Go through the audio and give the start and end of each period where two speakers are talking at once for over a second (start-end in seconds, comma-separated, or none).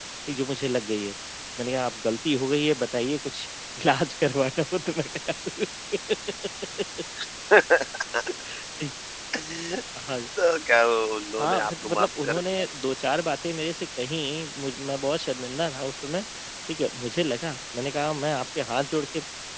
11.4-12.6